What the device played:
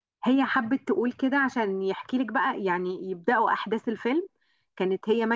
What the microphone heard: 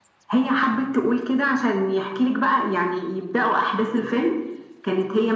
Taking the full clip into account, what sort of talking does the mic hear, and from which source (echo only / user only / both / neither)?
echo only